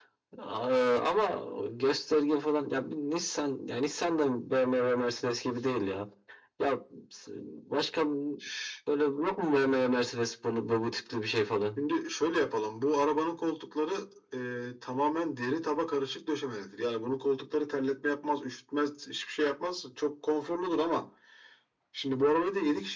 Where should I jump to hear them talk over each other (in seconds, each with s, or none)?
none